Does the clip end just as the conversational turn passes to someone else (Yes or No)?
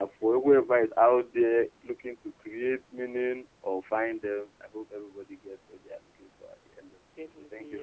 Yes